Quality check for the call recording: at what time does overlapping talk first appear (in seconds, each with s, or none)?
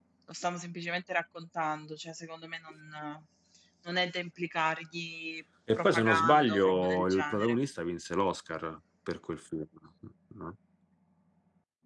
5.7 s